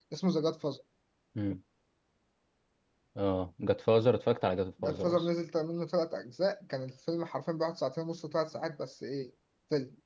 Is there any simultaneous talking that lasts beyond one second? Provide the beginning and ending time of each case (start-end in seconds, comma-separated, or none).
none